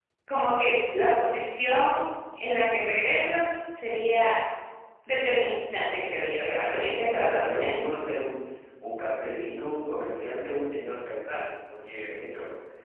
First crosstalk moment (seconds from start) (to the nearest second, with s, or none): 6 s